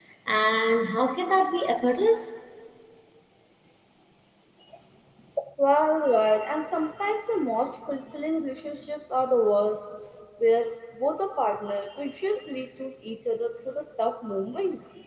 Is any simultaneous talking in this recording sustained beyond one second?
No

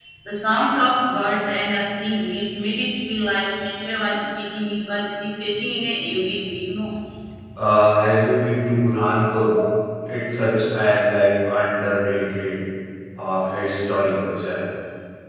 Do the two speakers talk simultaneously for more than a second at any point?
No

